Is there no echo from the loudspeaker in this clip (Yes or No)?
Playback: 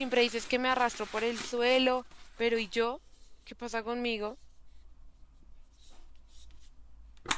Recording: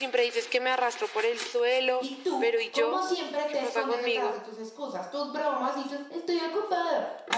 No